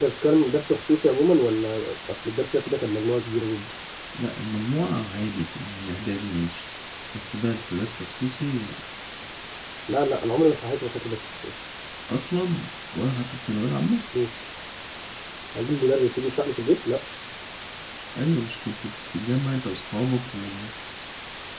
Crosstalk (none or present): none